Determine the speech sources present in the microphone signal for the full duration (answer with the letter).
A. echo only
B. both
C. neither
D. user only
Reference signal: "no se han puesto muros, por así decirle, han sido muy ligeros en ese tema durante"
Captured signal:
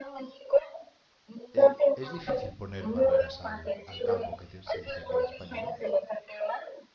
B